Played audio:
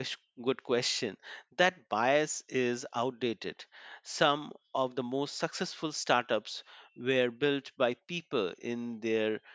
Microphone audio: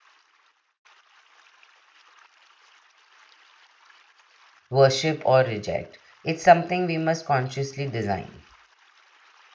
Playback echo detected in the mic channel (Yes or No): No